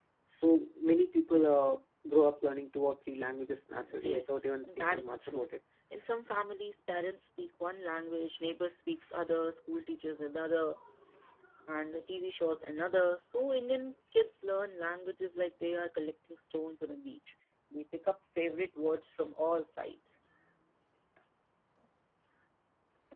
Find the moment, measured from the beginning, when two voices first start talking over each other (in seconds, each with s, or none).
3.8 s